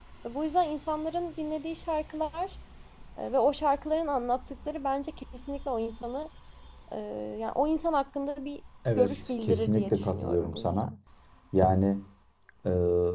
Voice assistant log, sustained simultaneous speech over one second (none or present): present